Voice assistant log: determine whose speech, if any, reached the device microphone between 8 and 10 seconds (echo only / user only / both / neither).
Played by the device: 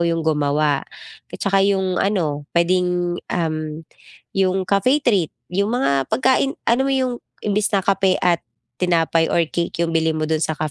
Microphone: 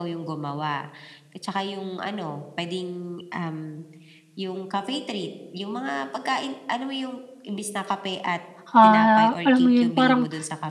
both